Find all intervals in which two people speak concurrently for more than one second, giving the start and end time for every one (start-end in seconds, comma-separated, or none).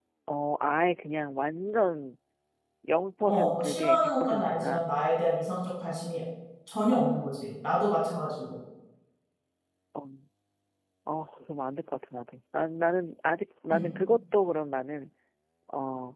3.3-4.9